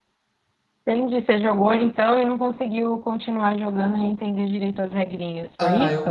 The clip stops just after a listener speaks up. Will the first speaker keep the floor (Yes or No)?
No